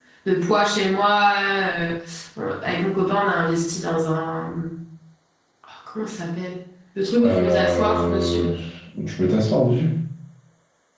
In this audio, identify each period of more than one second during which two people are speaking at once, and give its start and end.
7.2-8.4

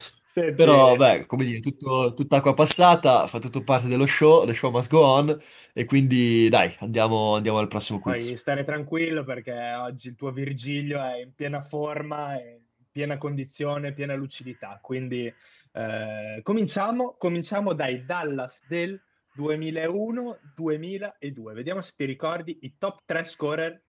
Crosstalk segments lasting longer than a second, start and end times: none

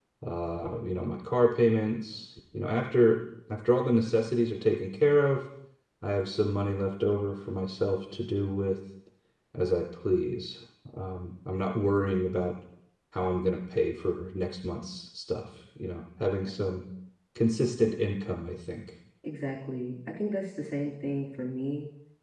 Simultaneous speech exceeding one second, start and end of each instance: none

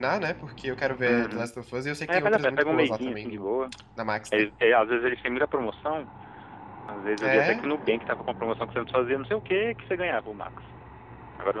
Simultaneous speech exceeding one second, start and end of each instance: 2.1-3.5

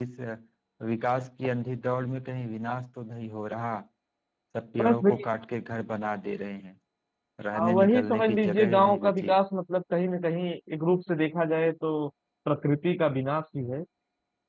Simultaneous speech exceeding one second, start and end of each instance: 7.5-9.3

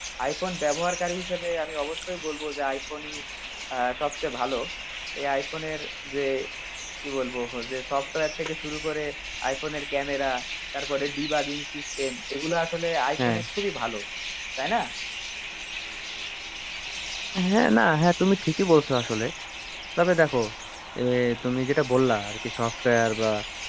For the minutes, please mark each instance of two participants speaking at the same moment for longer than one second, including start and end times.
none

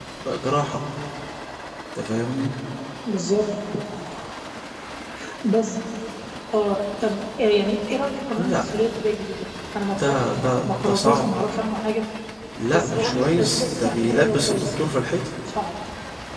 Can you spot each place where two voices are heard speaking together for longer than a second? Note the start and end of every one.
10.0-11.2, 12.7-14.7

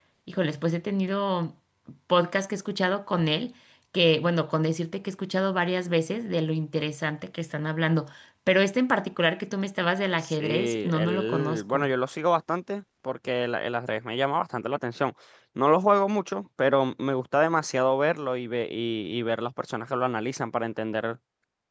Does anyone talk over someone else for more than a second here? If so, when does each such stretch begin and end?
10.2-11.9

